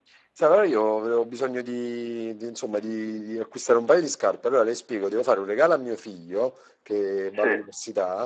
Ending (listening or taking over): listening